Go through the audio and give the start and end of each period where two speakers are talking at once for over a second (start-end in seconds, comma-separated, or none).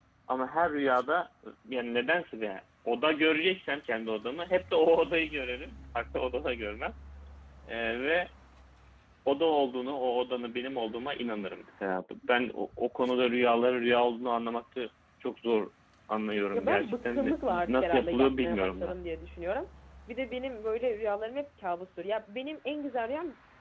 16.5-18.9